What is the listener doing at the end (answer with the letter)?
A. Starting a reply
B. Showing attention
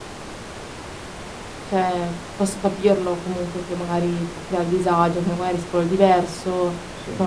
B